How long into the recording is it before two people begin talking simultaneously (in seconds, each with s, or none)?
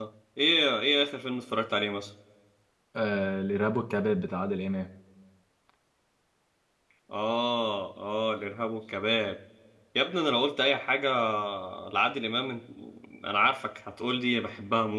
none